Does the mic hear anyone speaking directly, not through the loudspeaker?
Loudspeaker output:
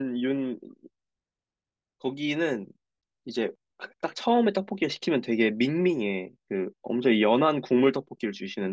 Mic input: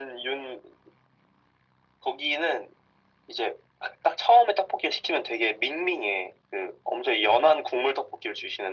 No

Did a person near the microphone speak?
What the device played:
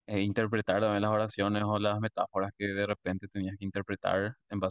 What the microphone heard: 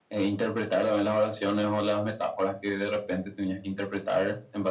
No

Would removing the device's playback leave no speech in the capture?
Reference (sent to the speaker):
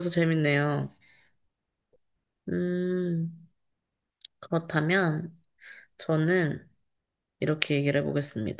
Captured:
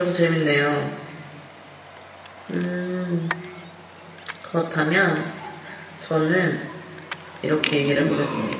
No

